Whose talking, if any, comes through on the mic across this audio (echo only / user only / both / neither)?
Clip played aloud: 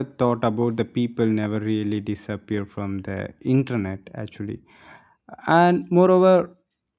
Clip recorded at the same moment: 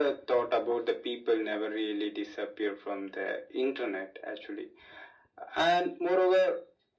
echo only